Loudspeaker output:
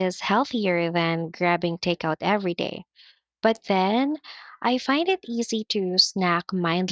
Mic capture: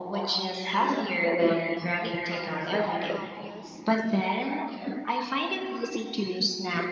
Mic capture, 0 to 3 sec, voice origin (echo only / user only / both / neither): both